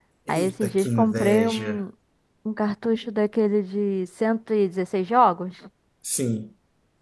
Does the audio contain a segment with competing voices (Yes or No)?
Yes